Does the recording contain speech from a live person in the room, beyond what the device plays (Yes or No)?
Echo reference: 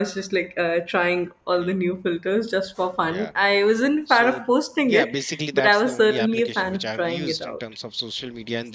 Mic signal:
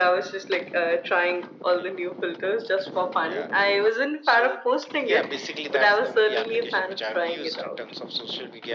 No